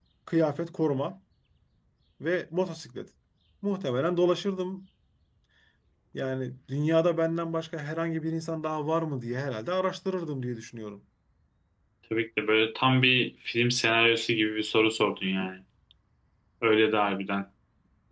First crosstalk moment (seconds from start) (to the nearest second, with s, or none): none